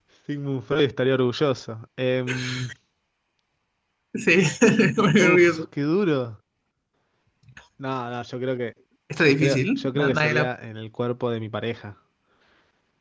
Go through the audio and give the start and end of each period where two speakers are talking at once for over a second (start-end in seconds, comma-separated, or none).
9.2-10.5